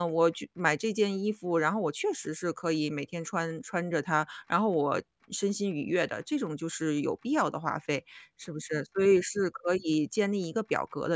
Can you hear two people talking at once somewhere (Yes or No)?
No